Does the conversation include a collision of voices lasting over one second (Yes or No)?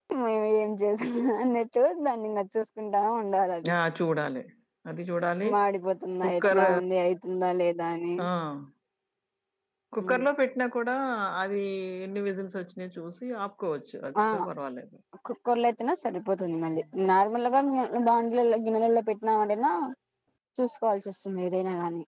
No